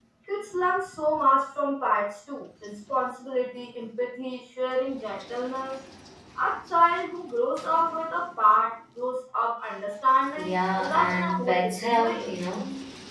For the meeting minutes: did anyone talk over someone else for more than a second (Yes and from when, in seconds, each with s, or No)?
Yes, from 10.4 s